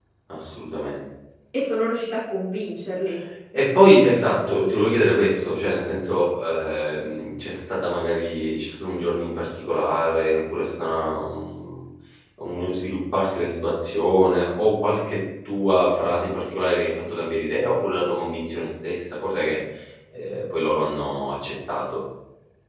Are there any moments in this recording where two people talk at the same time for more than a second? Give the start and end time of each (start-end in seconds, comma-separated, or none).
none